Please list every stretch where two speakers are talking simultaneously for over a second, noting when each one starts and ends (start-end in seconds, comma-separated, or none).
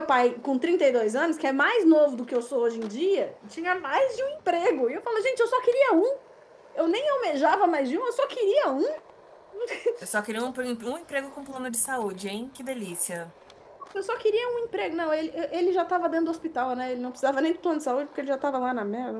none